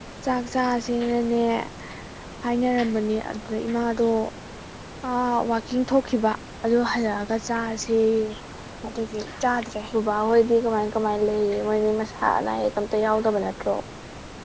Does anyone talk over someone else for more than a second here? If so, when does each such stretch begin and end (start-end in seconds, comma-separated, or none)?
none